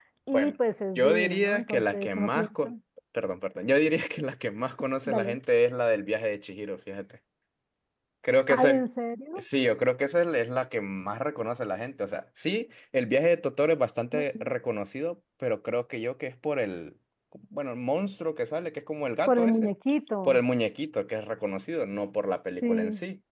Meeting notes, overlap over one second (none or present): present